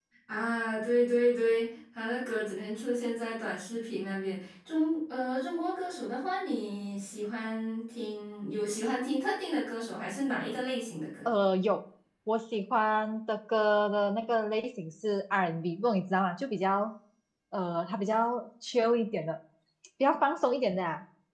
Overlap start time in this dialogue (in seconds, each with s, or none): none